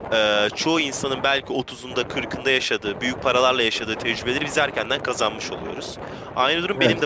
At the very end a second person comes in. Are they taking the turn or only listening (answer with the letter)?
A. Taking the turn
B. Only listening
B